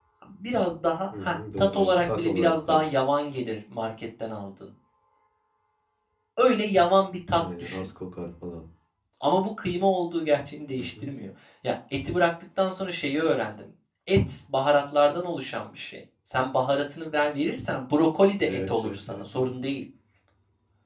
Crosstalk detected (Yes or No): Yes